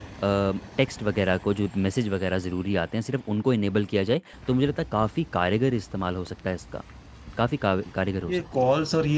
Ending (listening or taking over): taking over